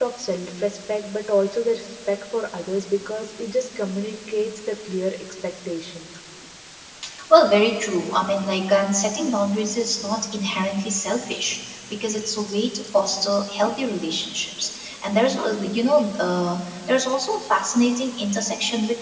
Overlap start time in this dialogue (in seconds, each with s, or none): none